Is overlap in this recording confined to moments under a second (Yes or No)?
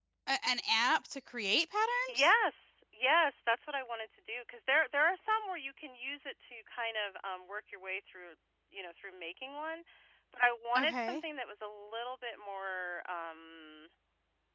Yes